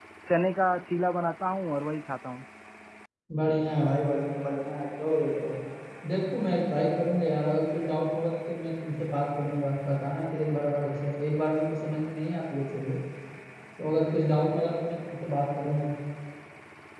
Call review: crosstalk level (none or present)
none